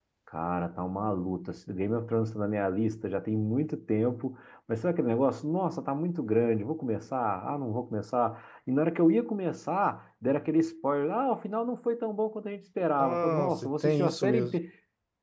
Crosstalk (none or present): present